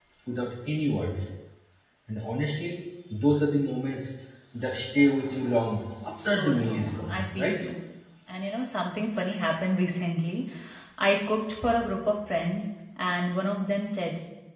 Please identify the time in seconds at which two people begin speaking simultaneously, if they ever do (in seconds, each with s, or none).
6.2 s